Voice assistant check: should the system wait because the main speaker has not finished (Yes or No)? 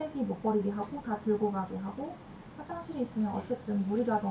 Yes